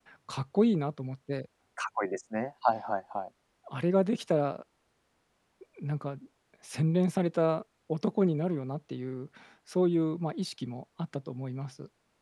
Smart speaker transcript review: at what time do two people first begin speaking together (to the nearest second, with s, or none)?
none